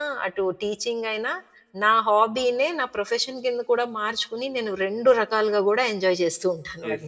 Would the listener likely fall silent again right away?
No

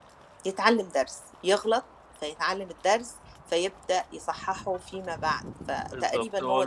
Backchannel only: No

